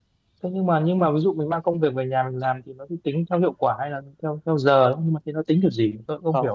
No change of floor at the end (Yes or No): No